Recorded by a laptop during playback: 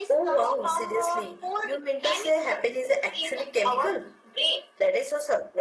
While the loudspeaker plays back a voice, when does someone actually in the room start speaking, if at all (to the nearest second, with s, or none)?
none